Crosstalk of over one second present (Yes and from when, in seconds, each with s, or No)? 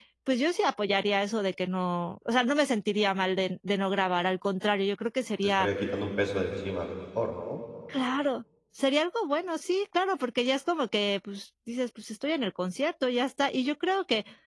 No